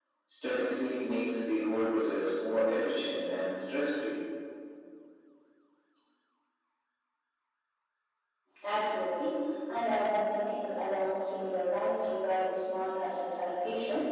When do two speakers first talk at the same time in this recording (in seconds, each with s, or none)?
none